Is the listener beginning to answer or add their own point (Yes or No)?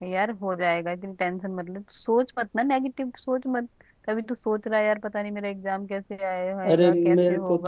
Yes